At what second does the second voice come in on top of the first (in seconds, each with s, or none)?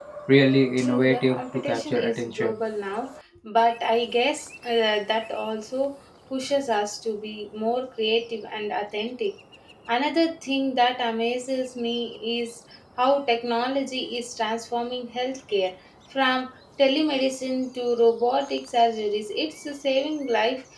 0.8 s